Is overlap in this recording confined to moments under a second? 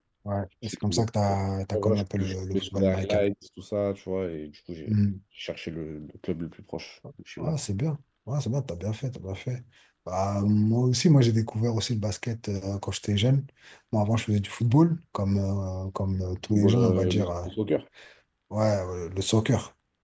No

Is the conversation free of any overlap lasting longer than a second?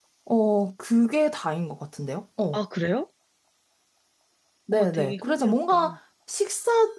No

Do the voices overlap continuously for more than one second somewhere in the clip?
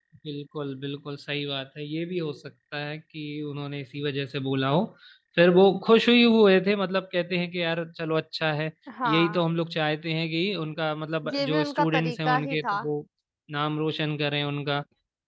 Yes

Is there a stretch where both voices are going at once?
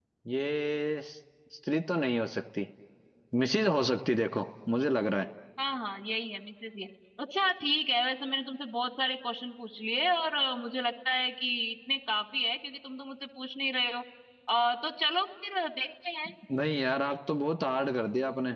No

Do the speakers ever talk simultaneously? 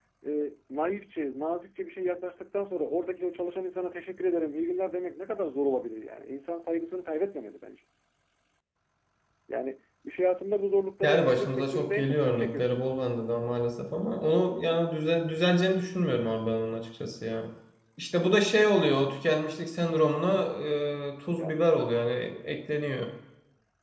Yes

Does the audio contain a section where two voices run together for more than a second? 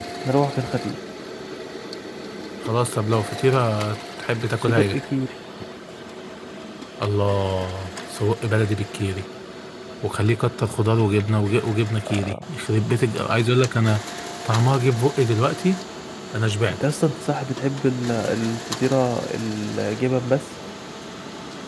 No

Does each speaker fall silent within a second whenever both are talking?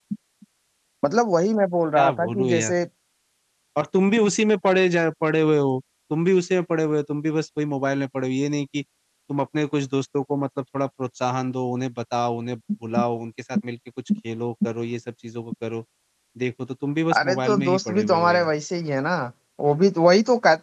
No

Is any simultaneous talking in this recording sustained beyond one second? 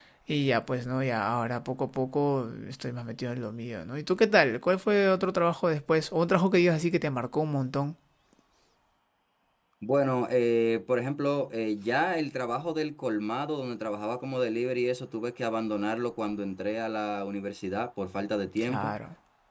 No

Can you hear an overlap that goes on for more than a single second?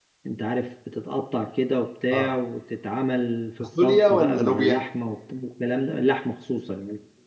Yes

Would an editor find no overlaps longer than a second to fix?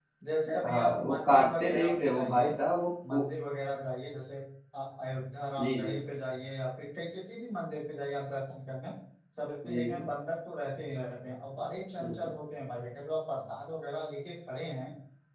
No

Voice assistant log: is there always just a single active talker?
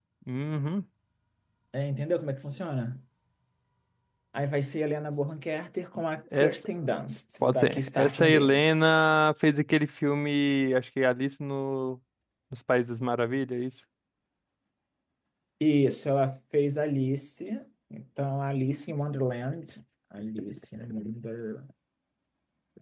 No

